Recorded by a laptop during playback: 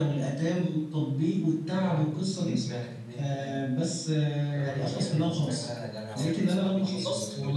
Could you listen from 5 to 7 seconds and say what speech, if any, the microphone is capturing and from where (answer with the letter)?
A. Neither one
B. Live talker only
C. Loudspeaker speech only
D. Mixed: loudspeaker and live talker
D